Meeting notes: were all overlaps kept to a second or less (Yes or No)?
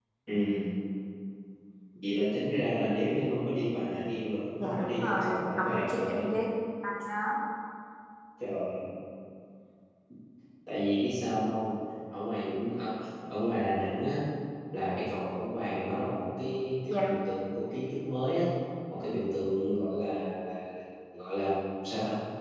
No